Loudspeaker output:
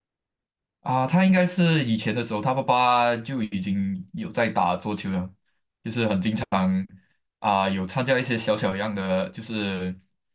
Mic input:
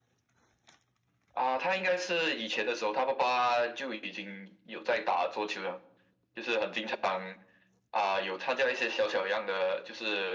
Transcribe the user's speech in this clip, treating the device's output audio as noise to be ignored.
none

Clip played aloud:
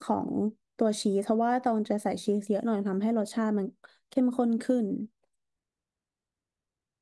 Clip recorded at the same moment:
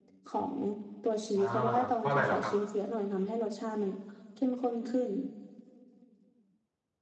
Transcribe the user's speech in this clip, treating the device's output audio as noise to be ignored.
อ่าเพราะอะไรเหรอครับ

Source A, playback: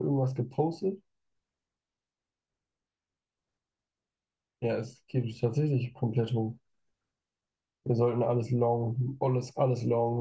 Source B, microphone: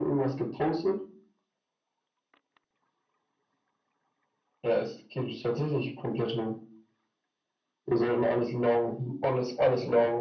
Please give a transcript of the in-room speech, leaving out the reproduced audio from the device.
none

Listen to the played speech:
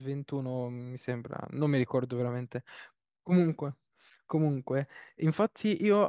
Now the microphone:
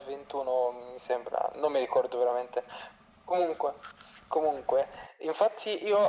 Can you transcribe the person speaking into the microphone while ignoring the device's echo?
none

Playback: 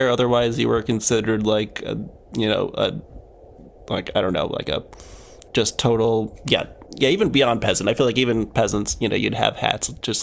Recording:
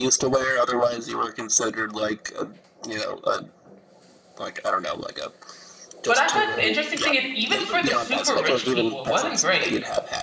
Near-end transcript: But I feel like the interesting thing is even for the super rich people, it wasn't great.

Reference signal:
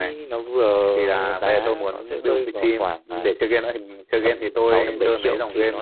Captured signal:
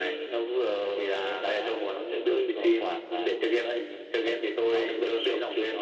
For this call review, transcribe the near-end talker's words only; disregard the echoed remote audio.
none

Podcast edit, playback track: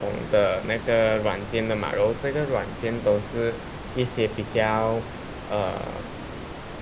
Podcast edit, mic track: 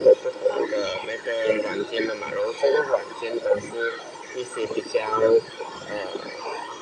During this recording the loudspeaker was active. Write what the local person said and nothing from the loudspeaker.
none

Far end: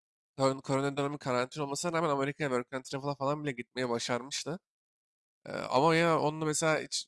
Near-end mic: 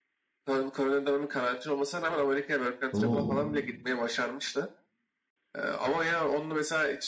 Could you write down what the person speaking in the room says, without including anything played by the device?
Oo.

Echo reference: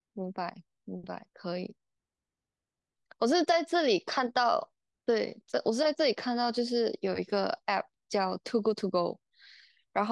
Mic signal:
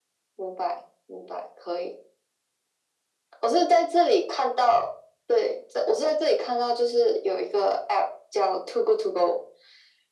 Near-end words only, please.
none

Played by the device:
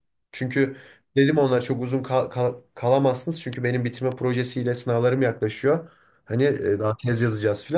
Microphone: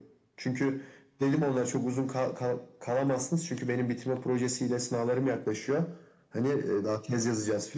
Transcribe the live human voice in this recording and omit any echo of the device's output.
none

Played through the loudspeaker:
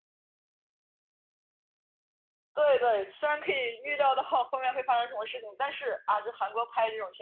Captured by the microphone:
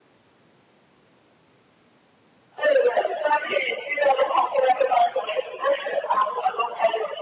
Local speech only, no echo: none

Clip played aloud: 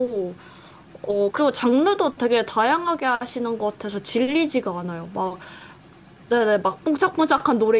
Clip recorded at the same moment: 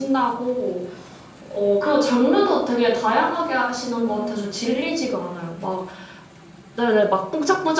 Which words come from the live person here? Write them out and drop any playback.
음,

